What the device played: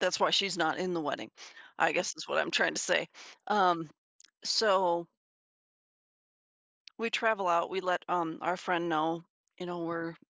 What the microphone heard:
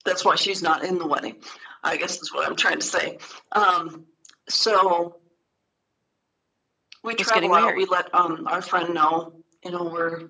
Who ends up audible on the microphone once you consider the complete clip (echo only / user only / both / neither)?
both